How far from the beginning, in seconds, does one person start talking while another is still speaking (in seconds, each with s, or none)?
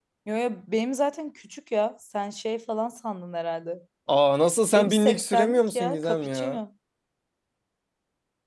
4.8 s